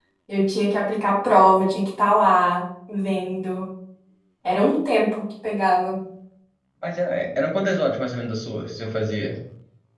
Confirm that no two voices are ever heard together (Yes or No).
Yes